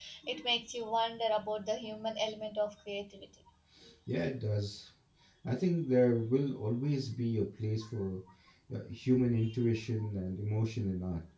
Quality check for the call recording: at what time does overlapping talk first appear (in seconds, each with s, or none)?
none